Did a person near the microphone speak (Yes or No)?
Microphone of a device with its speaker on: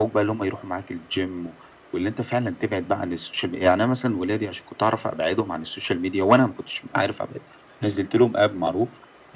No